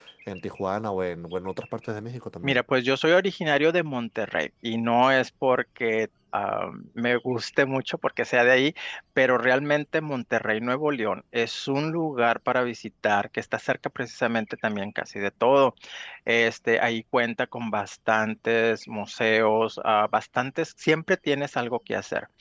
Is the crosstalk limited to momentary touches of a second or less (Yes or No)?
Yes